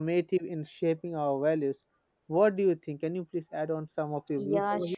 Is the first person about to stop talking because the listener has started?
Yes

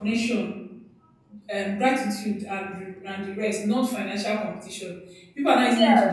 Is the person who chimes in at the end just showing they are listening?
No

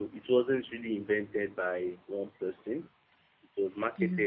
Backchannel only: Yes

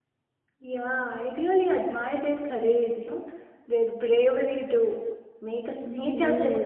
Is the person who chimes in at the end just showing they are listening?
No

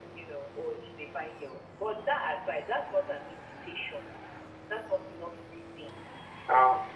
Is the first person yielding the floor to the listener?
Yes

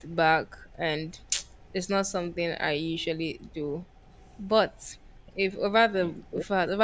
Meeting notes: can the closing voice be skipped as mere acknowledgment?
Yes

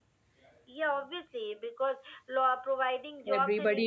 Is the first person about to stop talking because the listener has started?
Yes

